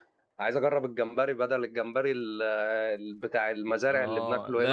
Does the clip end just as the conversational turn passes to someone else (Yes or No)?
Yes